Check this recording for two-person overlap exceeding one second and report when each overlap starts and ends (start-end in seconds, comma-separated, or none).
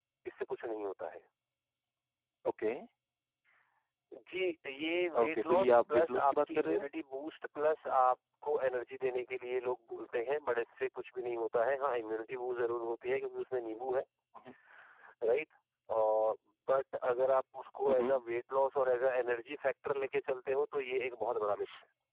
5.2-6.8